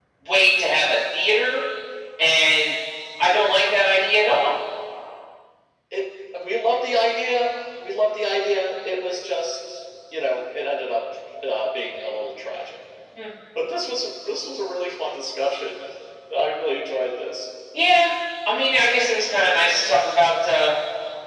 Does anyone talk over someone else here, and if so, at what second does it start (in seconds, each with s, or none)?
none